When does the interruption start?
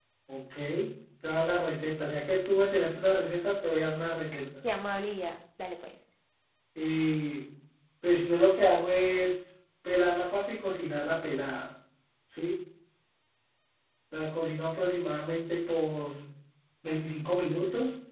none

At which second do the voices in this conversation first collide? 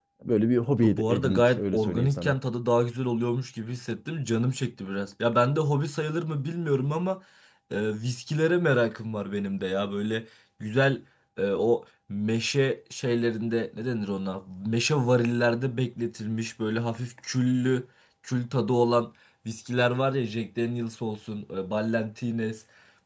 0.8 s

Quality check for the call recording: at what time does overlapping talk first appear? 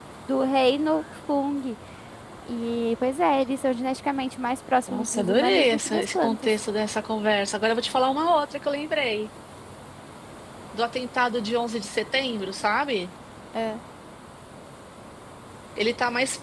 4.9 s

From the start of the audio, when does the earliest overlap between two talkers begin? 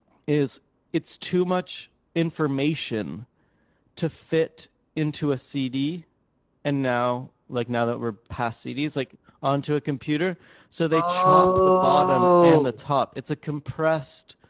10.9 s

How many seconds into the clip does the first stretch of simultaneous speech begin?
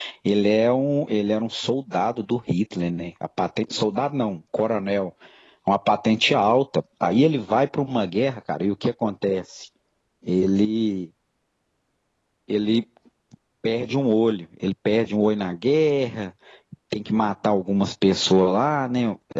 none

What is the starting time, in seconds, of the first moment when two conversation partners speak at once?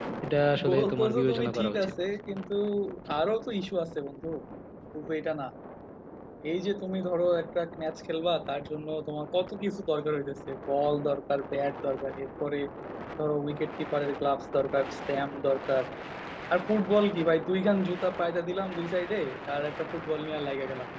0.7 s

